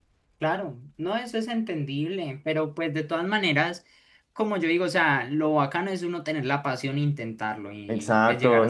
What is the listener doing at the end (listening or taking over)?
taking over